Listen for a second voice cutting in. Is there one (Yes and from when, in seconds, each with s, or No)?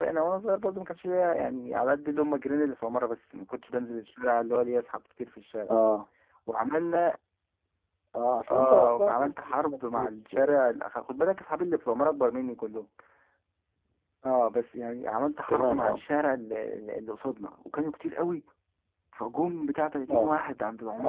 Yes, from 8.5 s